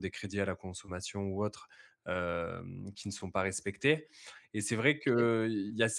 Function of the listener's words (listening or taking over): listening